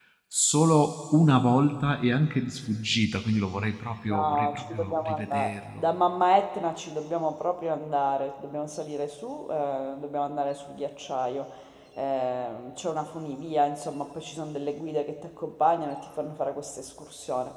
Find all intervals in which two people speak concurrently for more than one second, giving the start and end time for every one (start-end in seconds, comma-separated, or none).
4.1-5.8